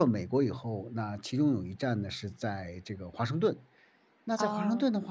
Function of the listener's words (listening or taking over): listening